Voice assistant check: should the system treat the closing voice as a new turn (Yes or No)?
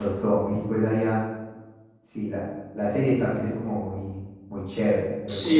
Yes